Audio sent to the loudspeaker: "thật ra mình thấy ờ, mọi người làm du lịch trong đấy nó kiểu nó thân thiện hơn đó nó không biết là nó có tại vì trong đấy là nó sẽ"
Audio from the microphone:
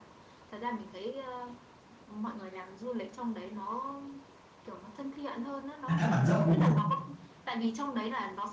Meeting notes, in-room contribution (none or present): present